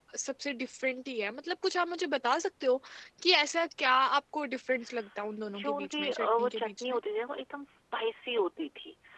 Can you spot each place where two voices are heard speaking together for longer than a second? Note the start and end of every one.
5.6-7.0

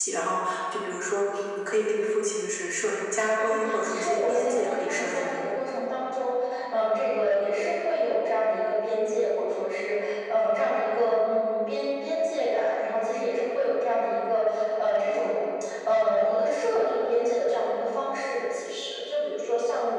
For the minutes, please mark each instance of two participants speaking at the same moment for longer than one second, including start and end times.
3.4-5.4

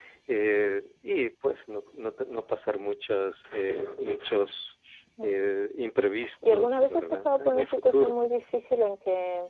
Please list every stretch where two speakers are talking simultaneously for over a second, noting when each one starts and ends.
6.5-8.1

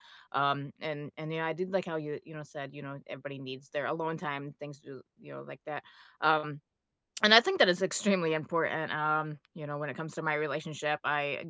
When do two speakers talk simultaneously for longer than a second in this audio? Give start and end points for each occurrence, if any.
none

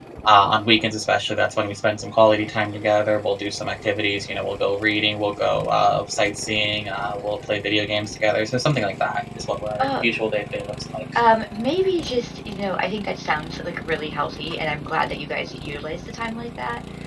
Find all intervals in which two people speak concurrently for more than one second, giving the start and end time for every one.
none

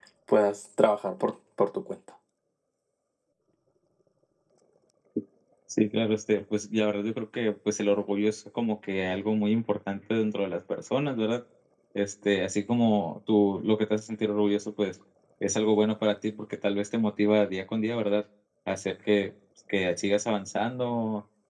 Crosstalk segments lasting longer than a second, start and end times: none

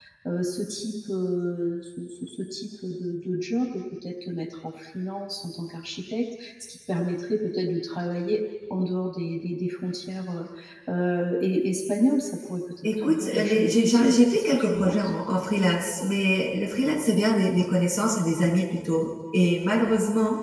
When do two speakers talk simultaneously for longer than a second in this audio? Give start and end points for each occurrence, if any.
12.8-15.1

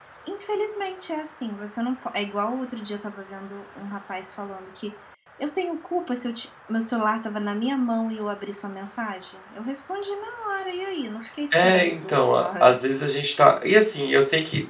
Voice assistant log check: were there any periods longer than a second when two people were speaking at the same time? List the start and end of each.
11.5-12.8

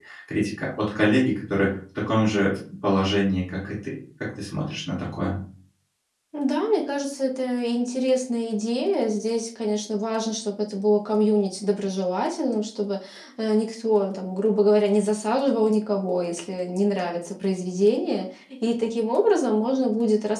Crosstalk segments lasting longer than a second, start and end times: none

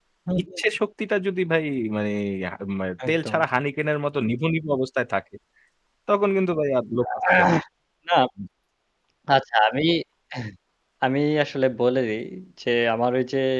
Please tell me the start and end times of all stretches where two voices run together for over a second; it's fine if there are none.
none

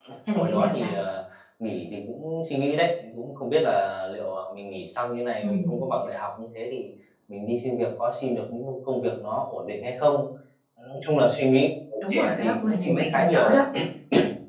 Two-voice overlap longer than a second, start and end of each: 12.1-13.6

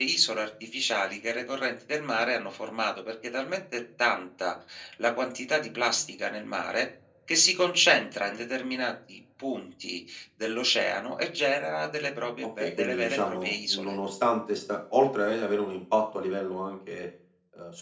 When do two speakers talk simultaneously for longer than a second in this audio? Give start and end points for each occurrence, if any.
12.6-14.0

